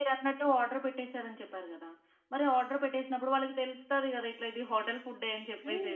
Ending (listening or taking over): taking over